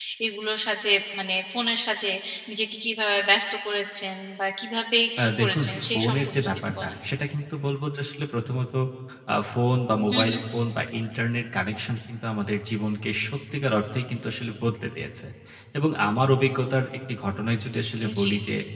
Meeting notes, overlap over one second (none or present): present